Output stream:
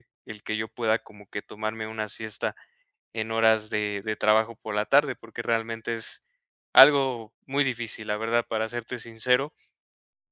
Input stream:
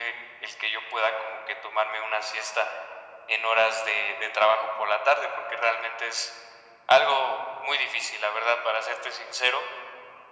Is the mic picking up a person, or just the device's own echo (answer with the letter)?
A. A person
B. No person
B